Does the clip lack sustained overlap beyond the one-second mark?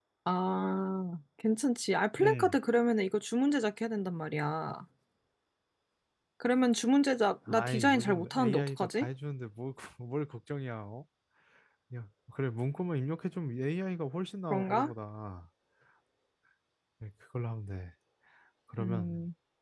No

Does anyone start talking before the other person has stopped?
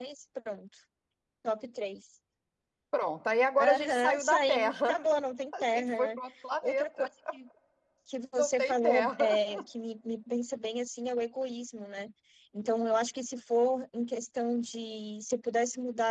Yes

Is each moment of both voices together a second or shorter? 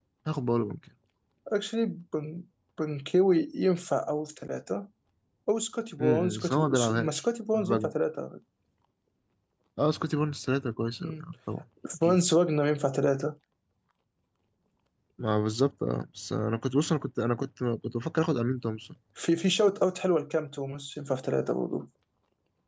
No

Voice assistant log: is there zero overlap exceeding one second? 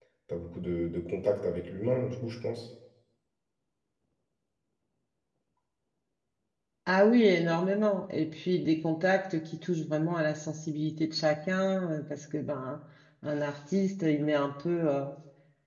Yes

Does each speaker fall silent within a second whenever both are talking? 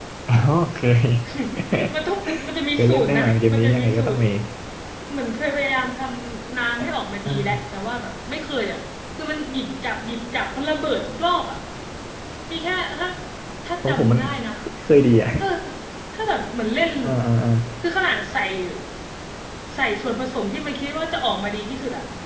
No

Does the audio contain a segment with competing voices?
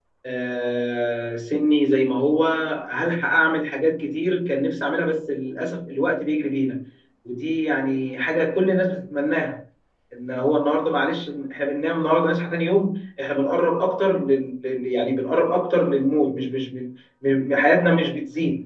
No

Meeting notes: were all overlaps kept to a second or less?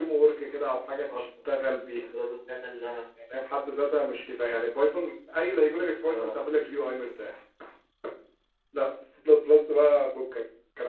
Yes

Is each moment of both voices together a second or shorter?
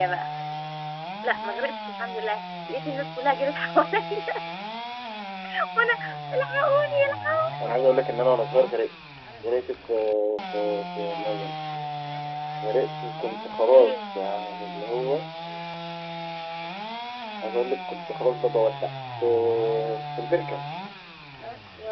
Yes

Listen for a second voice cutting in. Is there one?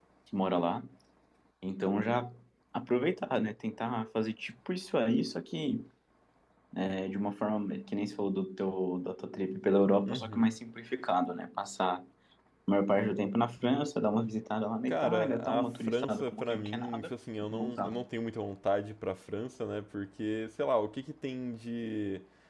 Yes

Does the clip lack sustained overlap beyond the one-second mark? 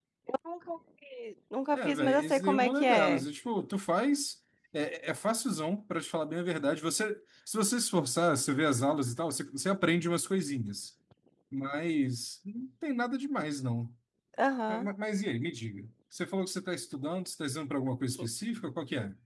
No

